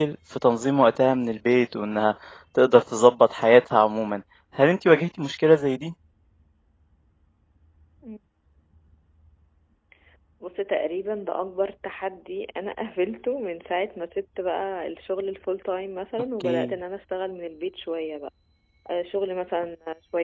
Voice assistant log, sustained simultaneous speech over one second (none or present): none